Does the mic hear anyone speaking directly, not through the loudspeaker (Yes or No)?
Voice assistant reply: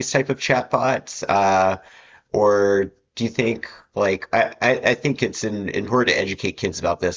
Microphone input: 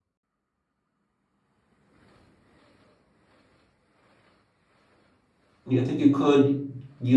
Yes